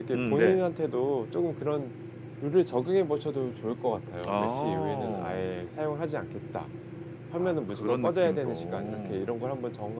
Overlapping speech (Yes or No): Yes